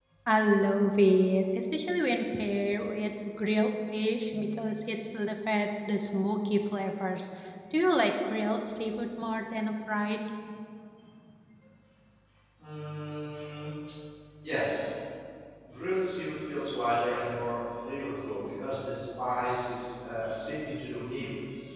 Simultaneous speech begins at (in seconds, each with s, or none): none